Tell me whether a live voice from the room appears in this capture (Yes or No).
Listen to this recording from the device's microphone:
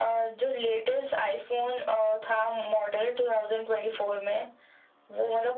No